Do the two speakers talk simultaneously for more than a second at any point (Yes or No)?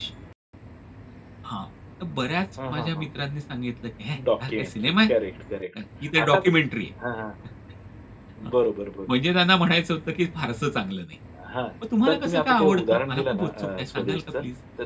Yes